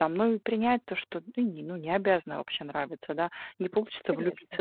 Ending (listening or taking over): listening